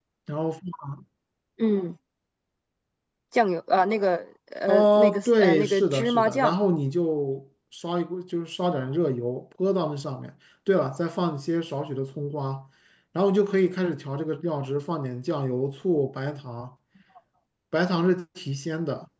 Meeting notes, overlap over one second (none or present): present